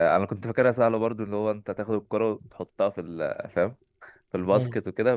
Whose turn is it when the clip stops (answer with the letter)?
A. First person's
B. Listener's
A